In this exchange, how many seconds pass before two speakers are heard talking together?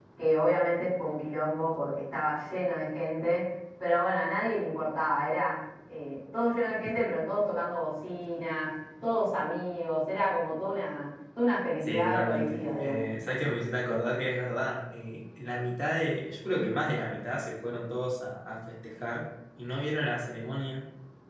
11.8 s

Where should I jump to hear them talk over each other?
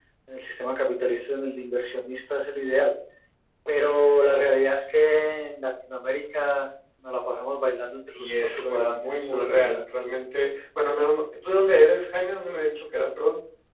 8.2 s

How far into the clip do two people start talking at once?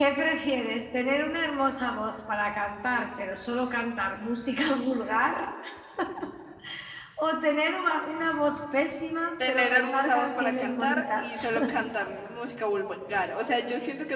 9.4 s

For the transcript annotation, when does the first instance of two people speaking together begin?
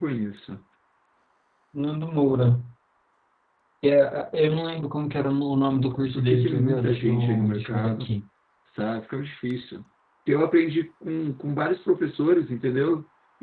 5.9 s

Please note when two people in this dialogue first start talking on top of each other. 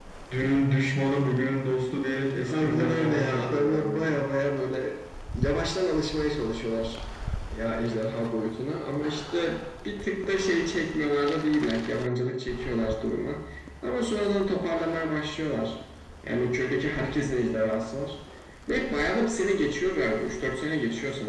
2.5 s

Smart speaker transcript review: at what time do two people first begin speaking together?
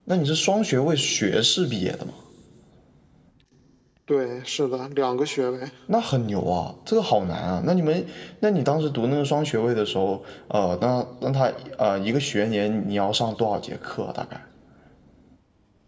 none

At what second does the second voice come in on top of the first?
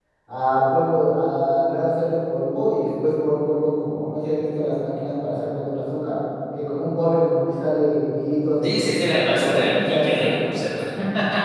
8.6 s

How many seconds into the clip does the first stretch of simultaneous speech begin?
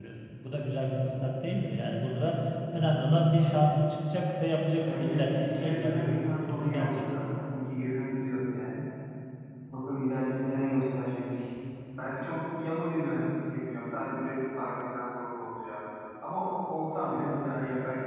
4.8 s

